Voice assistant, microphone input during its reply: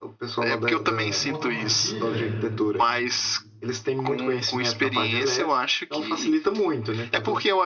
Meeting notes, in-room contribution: present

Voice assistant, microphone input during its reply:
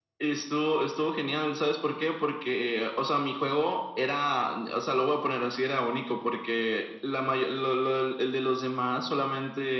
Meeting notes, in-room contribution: none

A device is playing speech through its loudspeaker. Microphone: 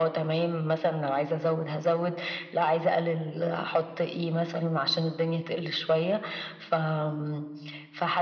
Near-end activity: none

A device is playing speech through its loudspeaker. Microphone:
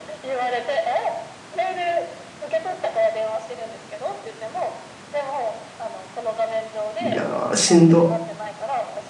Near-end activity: present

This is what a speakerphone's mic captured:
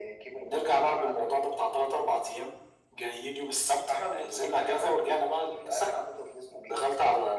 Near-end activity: none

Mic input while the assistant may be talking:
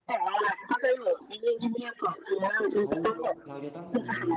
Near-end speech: present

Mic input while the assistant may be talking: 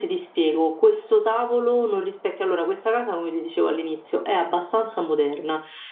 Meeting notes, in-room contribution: none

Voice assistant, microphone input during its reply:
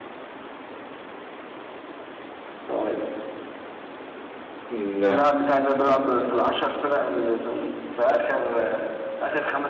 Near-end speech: present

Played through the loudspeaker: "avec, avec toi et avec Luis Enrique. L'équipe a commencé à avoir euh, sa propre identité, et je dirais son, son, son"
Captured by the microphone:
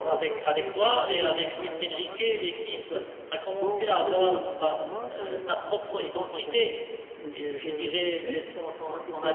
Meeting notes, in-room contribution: present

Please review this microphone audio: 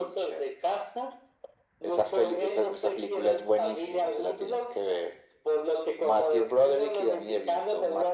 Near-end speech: none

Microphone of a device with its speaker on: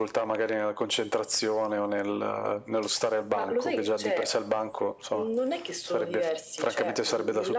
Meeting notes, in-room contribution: none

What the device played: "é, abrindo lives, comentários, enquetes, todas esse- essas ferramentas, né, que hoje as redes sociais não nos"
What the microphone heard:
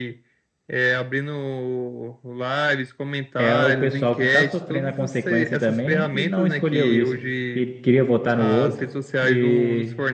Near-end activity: present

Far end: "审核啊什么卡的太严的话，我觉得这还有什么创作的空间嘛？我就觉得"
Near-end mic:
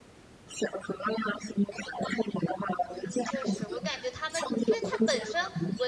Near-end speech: present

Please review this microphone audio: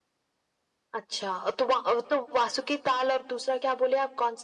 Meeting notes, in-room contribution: none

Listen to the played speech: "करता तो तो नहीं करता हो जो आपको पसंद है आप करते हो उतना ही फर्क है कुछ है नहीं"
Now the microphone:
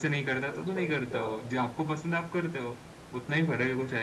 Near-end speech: present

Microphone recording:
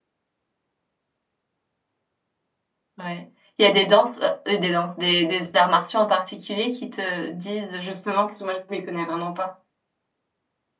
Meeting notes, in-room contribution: present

